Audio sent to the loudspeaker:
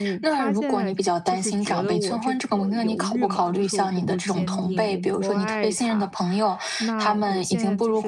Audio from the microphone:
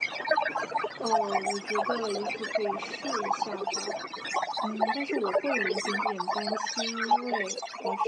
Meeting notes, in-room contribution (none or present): present